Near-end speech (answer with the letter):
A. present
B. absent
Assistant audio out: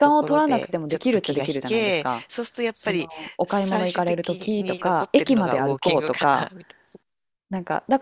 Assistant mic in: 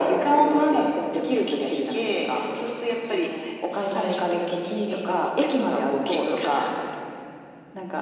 B